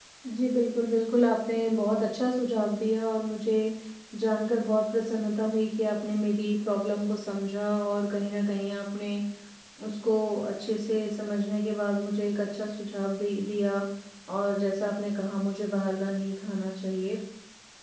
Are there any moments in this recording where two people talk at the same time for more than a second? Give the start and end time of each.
none

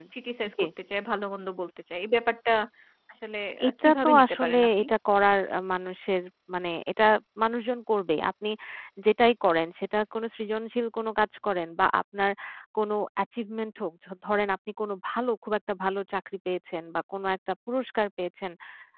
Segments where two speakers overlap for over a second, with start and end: 3.6-4.8

